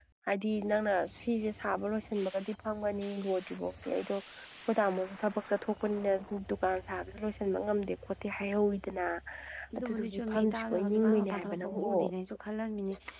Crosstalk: present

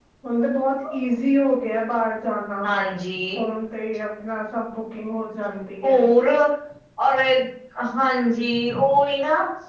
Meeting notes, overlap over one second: none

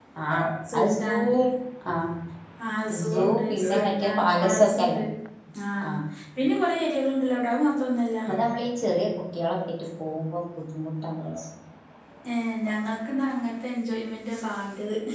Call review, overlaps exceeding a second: present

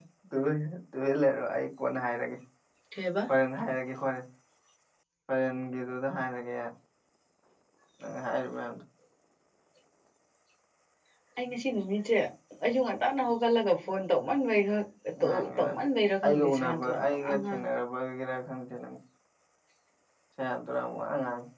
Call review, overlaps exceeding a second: present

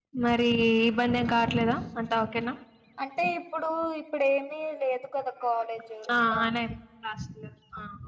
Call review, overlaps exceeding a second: none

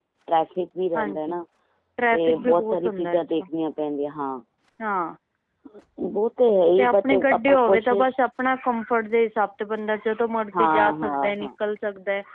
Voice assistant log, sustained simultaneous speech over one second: present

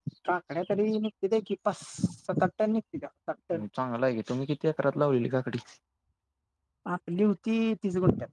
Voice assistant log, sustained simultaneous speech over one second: none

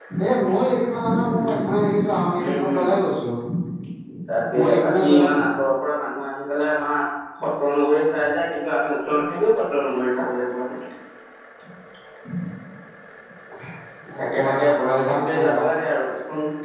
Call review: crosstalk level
present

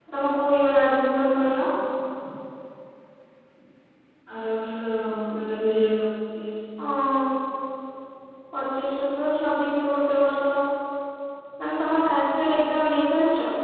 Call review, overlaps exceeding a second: none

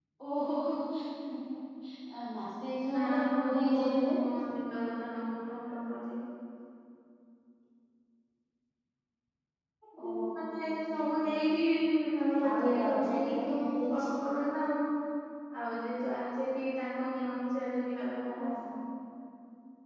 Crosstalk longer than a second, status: present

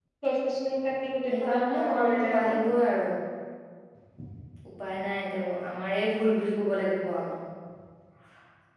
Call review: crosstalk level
present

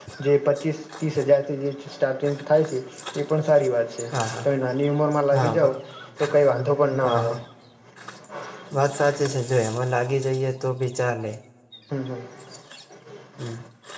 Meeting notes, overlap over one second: none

